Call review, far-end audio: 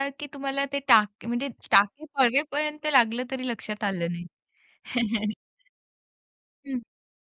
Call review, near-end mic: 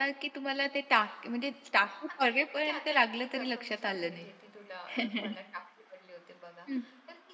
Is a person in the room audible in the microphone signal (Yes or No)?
Yes